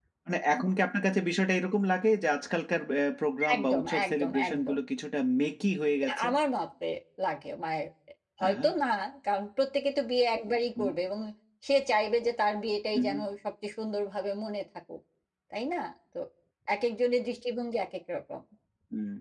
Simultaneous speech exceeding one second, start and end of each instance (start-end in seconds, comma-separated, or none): 3.5-4.8